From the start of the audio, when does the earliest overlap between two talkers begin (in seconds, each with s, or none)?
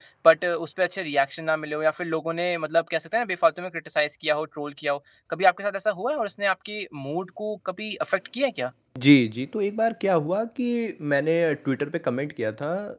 none